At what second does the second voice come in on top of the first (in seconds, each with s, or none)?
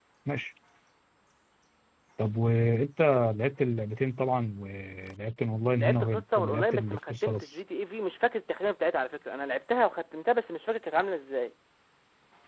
5.8 s